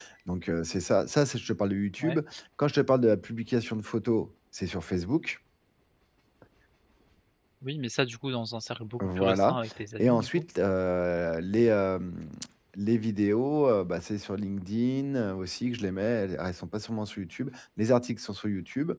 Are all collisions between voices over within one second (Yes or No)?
Yes